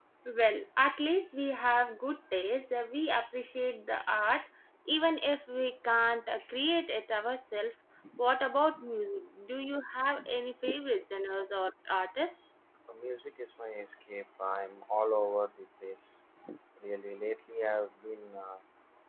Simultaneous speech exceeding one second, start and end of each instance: none

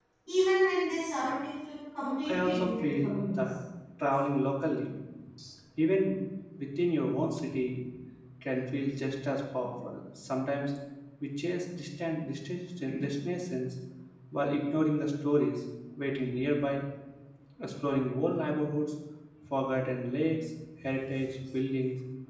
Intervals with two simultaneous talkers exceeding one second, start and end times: 2.2-3.4

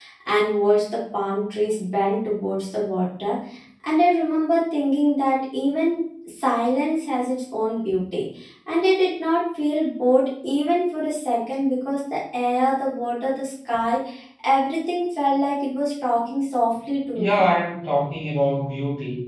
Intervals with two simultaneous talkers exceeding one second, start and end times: none

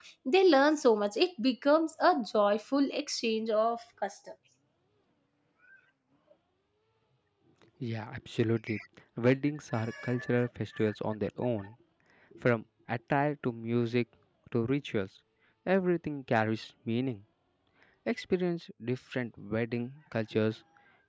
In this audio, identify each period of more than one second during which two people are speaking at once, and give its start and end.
none

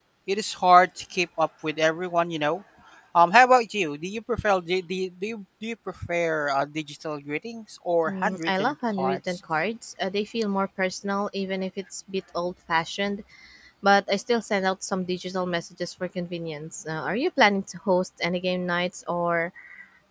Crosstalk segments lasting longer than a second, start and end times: 8.1-9.4

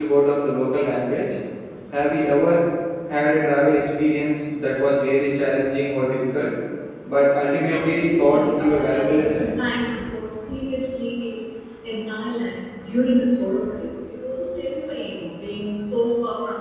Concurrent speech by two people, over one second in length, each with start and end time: 7.7-9.5

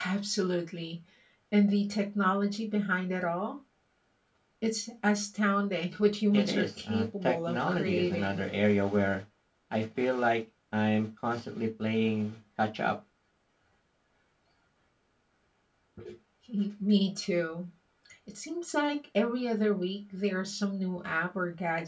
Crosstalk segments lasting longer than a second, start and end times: 6.3-8.4

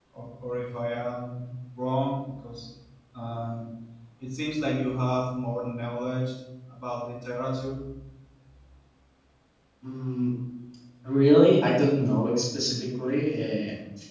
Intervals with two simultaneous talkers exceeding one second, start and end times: none

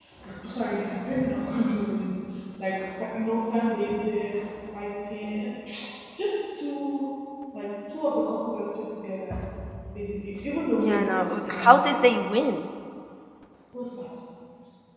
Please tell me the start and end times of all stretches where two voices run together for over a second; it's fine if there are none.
10.8-12.1

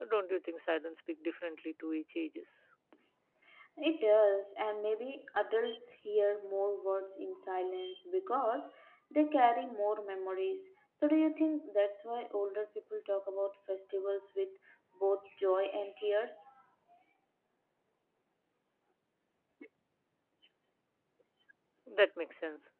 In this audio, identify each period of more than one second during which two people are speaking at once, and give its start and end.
none

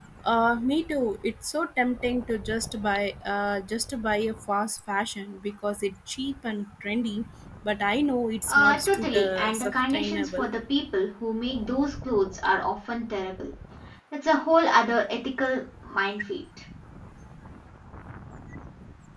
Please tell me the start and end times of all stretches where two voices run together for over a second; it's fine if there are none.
8.5-10.5

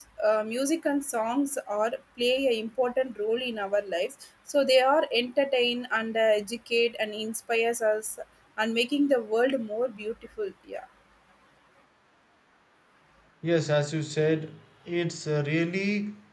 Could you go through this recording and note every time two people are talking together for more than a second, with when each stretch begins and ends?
none

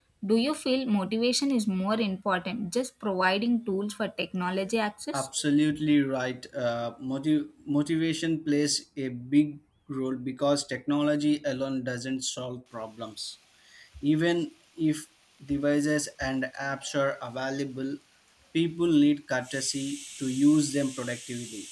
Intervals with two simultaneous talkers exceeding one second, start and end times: none

